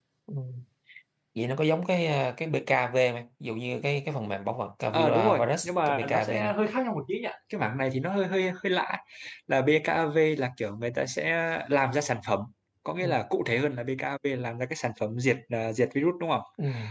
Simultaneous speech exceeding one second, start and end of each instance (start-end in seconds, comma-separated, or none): 4.9-6.5